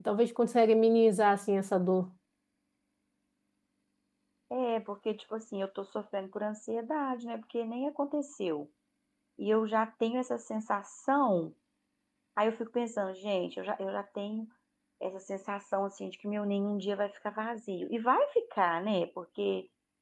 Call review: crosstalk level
none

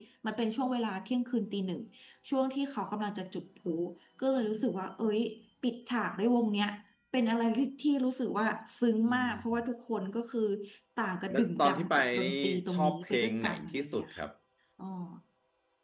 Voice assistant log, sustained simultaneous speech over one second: present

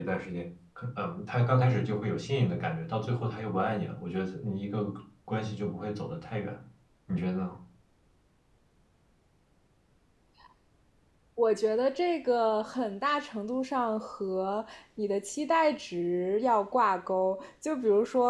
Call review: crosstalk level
none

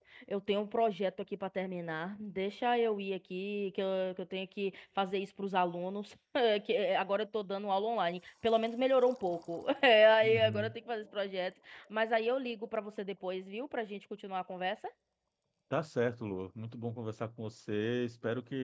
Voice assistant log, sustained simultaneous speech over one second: none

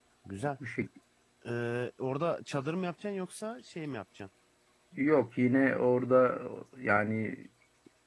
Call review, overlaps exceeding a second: none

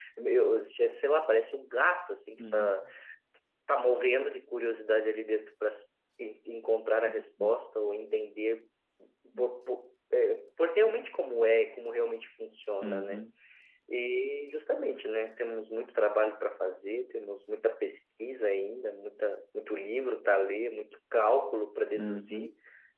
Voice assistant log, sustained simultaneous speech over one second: none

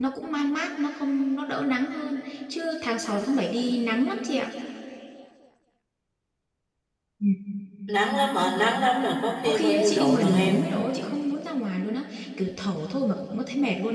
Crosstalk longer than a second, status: present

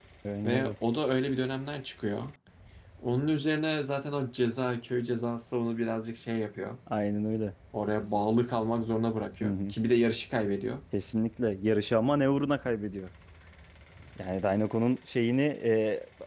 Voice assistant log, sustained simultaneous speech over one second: none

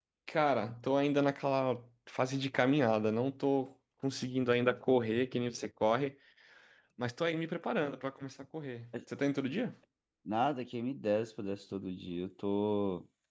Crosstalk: none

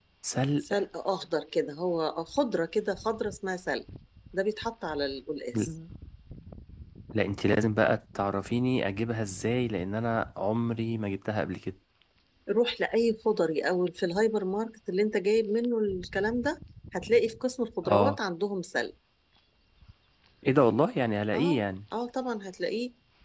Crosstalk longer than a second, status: none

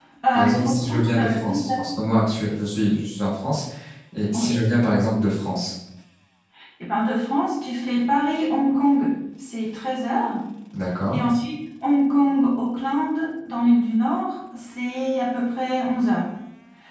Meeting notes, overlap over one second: present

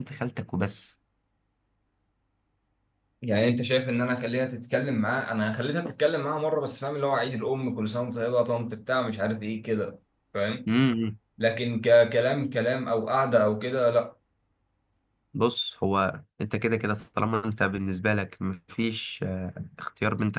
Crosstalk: none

